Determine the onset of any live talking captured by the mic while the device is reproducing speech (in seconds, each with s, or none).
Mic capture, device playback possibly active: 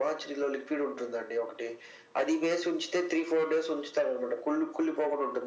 none